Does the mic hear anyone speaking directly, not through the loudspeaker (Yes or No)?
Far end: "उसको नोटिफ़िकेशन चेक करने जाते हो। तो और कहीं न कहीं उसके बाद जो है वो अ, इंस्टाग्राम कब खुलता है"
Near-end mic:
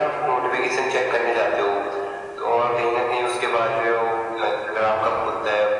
No